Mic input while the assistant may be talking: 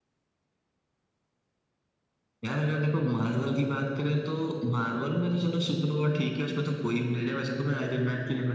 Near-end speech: none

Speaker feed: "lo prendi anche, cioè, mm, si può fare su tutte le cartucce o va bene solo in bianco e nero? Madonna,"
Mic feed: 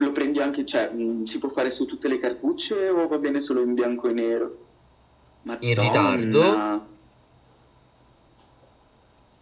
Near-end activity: present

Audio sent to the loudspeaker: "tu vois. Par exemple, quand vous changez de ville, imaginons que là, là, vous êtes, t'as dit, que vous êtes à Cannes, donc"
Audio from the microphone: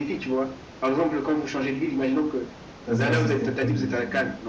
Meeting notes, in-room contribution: present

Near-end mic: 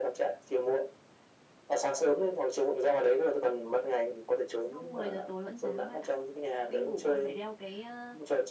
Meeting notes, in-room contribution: present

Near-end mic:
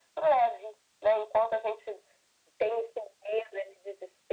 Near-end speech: none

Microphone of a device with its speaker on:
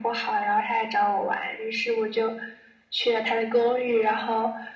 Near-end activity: none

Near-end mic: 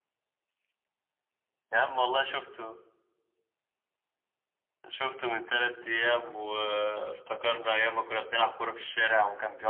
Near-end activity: none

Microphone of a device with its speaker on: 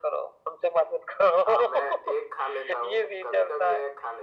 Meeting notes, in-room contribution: none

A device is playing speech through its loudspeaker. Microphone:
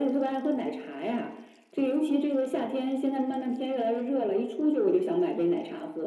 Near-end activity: none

